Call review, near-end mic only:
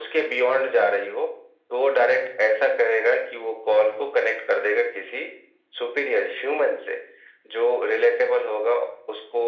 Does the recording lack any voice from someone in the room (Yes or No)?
Yes